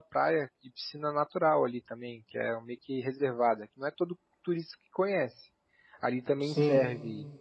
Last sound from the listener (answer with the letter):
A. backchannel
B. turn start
A